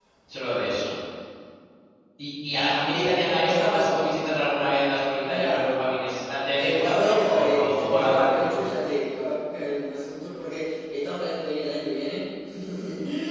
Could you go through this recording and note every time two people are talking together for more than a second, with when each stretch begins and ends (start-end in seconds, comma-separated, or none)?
2.9-4.4, 6.6-8.4